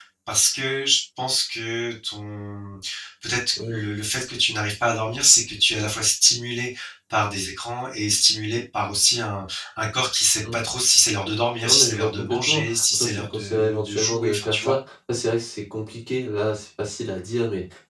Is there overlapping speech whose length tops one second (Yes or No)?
Yes